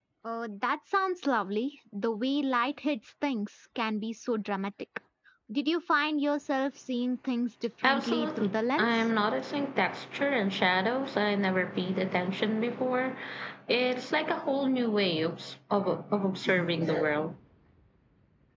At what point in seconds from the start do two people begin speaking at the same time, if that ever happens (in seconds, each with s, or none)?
7.8 s